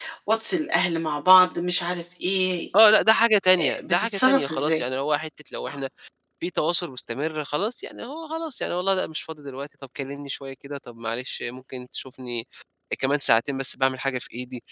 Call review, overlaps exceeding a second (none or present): present